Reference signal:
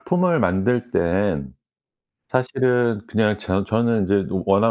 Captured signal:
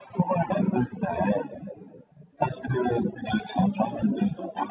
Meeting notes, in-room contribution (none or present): none